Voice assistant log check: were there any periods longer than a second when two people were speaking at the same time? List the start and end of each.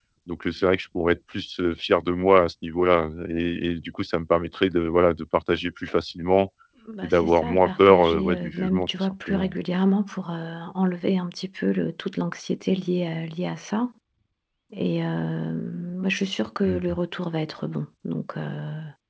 7.0-9.5

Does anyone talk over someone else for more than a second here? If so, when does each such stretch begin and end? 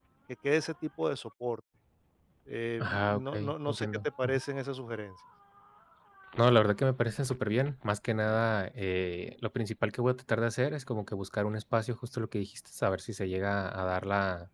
2.8-4.4

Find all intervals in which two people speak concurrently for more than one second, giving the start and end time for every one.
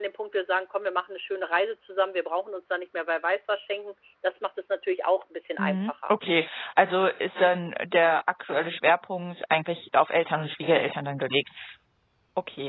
none

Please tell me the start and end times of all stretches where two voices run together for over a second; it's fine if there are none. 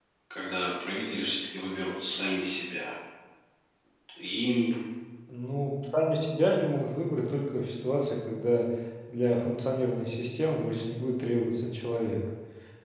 none

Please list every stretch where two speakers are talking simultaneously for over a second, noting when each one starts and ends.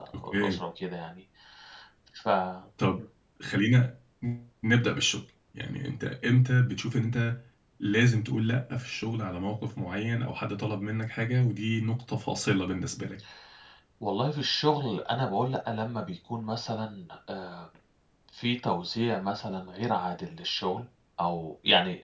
none

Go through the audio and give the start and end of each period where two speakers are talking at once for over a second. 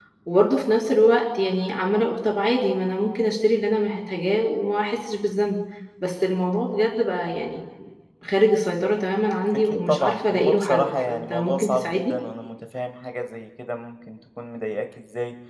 9.6-12.1

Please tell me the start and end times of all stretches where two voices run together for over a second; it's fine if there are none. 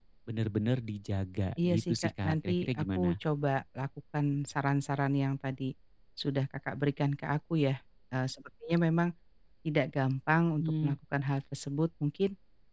1.6-3.1

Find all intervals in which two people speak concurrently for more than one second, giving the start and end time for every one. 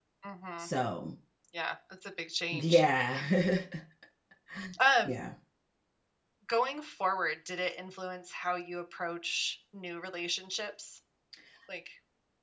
none

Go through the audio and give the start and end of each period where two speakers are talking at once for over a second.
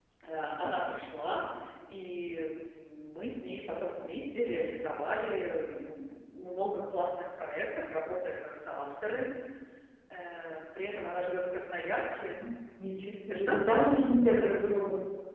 none

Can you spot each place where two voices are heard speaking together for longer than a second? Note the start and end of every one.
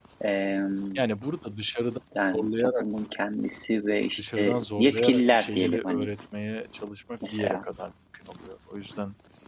4.2-6.1

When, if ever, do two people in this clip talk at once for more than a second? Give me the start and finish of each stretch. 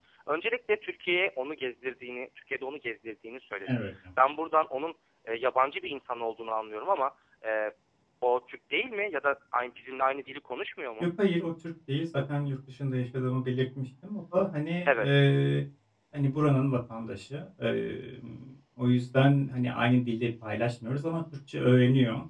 none

